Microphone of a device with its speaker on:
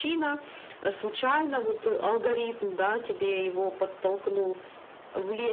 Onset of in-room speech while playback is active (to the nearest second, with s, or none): none